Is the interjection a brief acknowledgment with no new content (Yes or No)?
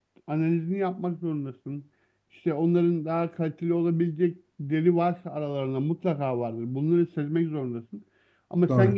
Yes